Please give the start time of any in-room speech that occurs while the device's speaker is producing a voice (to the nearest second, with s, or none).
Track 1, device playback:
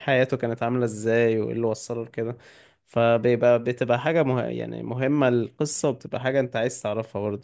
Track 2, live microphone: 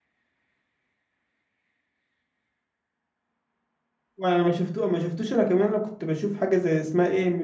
4 s